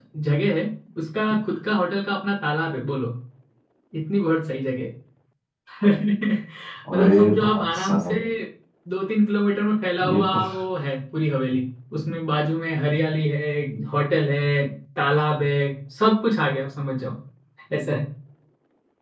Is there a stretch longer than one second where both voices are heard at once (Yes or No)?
Yes